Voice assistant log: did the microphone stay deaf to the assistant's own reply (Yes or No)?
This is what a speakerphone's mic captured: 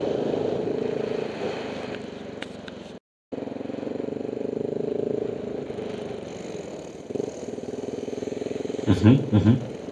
Yes